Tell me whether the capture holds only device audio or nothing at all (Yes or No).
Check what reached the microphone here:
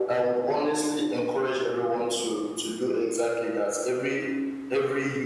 Yes